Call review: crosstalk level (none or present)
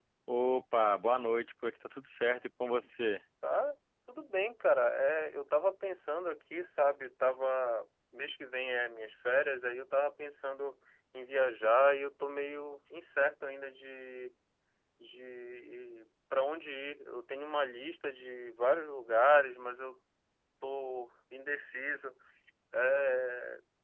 none